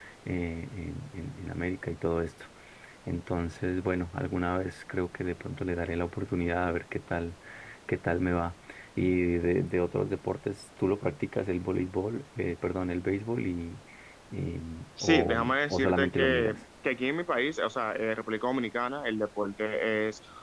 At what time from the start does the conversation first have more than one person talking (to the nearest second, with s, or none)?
15 s